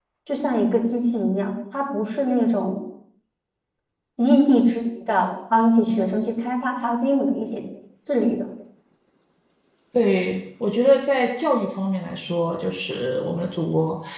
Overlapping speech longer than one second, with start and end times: none

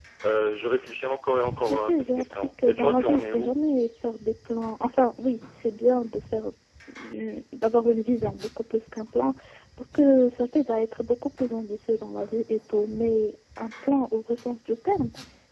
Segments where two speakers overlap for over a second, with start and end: 1.6-3.6

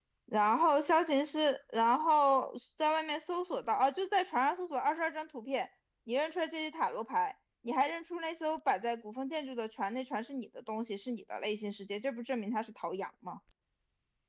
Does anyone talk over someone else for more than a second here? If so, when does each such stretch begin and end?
none

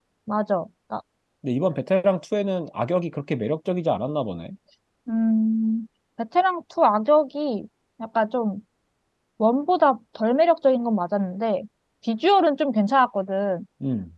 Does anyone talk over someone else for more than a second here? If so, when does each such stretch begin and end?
none

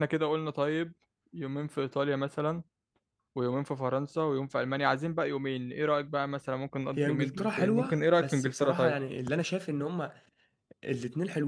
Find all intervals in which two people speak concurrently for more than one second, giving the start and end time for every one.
7.0-8.9

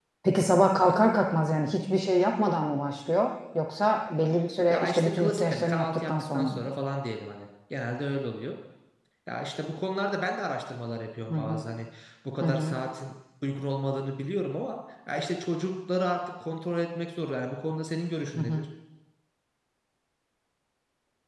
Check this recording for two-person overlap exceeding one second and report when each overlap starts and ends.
4.7-6.6

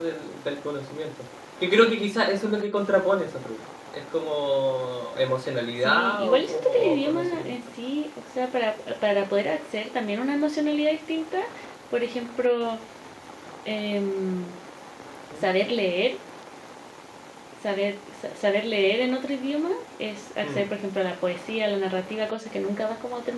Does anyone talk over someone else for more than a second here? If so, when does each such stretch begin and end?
5.8-7.5

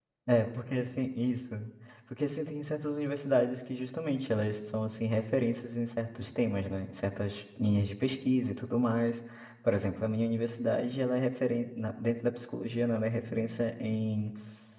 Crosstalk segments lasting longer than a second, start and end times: none

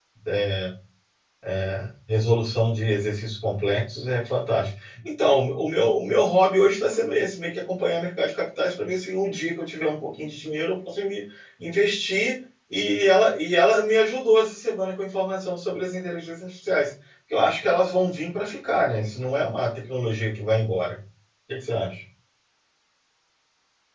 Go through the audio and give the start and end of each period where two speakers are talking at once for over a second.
none

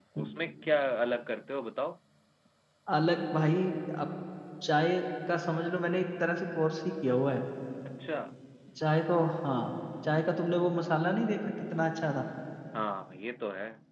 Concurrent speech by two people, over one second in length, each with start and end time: none

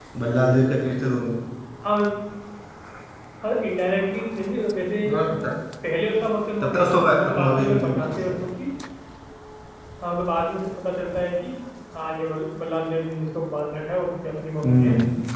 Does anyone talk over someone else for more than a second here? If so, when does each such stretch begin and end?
6.6-8.3

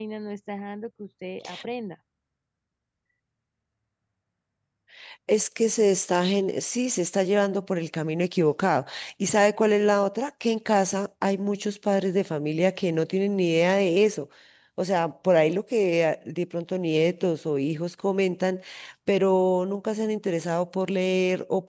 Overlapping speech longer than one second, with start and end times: none

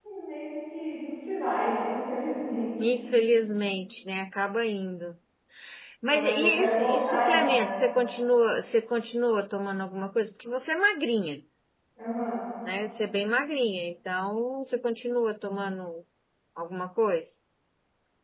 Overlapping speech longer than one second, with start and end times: 6.1-7.7

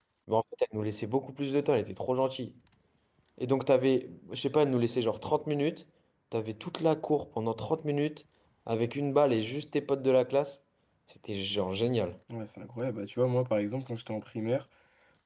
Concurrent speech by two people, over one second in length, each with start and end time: none

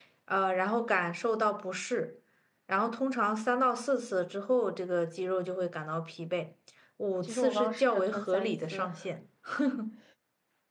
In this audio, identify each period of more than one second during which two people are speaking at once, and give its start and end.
7.2-8.9

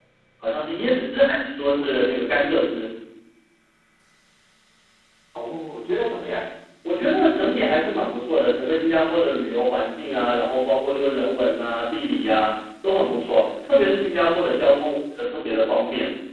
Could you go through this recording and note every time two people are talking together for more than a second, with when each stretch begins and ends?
none

